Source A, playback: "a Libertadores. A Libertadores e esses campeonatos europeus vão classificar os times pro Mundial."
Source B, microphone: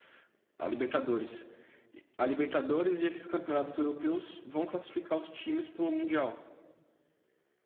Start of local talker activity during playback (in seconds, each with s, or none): none